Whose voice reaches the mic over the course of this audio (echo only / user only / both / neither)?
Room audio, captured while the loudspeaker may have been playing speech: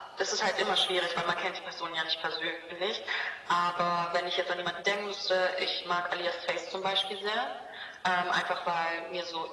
echo only